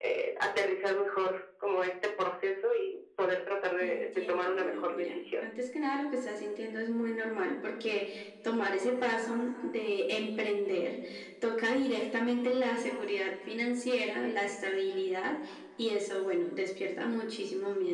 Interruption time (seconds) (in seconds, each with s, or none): 3.8 s